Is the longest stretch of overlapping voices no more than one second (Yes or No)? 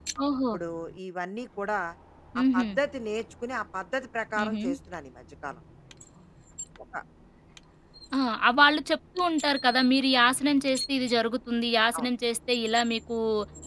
Yes